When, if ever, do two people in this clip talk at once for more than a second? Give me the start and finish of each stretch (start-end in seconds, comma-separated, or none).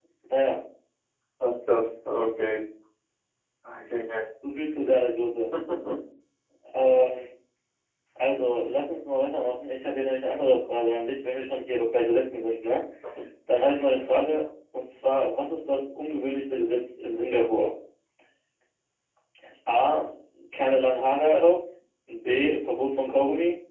none